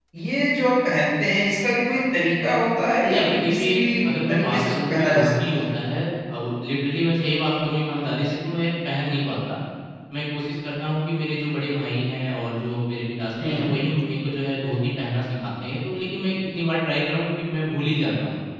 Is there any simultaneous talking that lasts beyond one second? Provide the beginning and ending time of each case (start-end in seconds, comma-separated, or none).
3.0-5.6